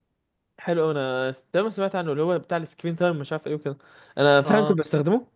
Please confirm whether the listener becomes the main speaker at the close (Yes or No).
No